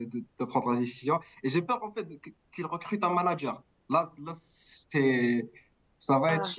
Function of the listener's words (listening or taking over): listening